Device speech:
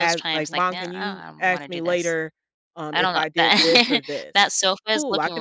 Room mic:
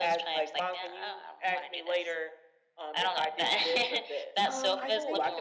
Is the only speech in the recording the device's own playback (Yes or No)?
No